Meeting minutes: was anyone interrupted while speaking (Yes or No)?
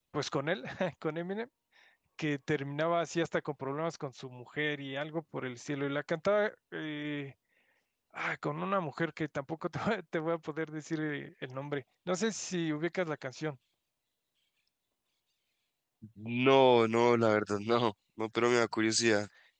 No